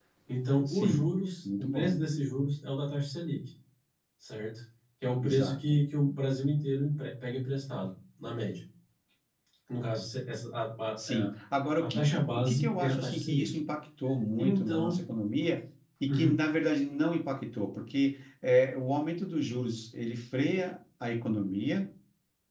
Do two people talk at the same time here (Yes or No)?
Yes